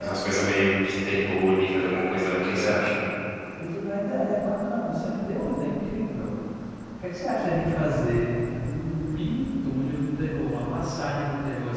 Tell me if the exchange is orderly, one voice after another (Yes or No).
Yes